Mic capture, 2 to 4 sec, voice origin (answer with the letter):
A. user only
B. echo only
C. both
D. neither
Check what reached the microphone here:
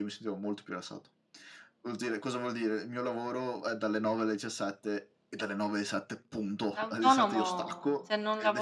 B